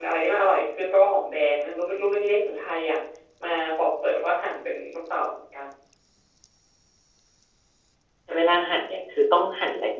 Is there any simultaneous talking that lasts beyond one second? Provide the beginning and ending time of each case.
none

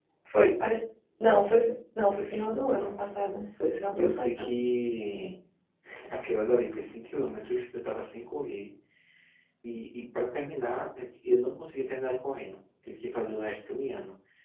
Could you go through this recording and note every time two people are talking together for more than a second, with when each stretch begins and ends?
none

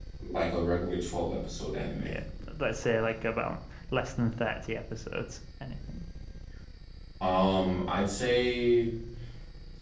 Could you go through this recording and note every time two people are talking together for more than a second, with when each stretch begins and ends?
none

